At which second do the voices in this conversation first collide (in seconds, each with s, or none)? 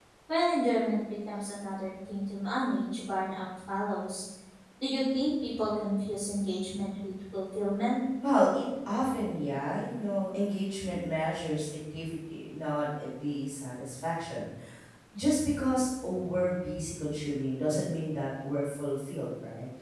none